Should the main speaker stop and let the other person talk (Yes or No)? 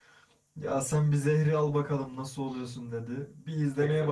No